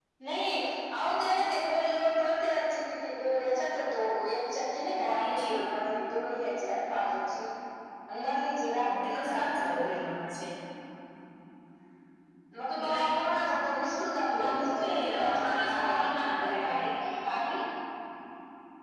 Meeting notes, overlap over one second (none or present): present